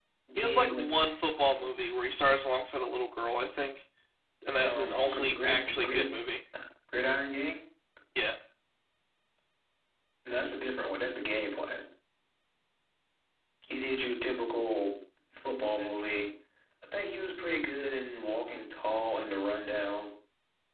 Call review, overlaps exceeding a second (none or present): present